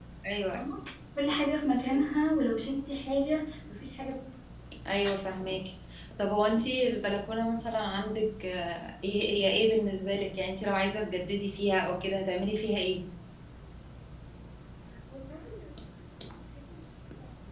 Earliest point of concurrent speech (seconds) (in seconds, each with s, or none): none